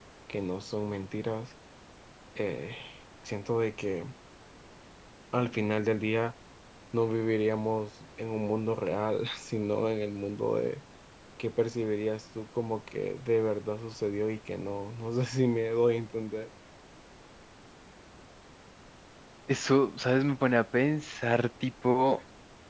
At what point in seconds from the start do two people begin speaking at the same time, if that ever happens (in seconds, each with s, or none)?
none